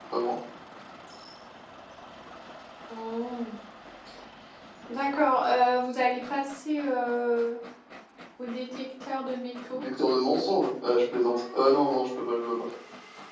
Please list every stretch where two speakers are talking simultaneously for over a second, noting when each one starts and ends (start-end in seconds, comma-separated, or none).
none